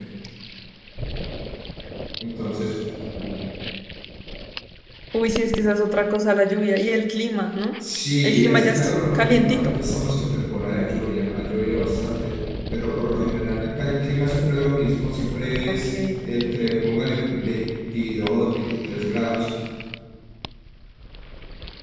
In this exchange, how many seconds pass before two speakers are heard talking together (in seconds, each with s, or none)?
8.2 s